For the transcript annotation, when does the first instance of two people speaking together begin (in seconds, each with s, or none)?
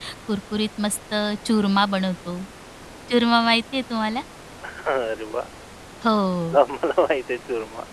none